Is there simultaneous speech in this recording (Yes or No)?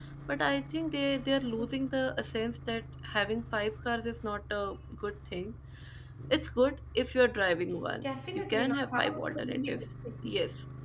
Yes